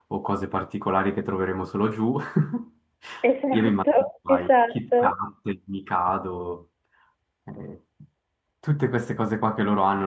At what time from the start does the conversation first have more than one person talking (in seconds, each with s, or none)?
3.5 s